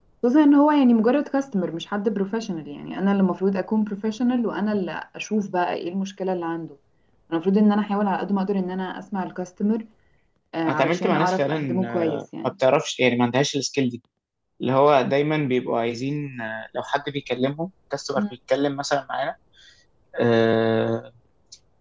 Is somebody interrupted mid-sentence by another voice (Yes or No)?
Yes